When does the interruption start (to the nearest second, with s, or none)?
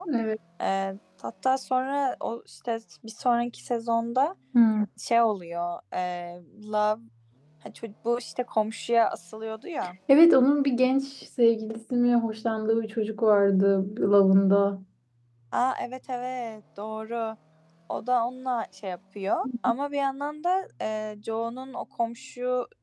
none